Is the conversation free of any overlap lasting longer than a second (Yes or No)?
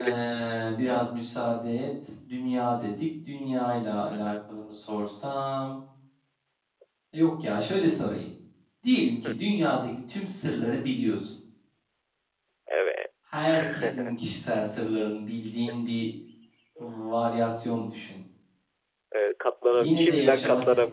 No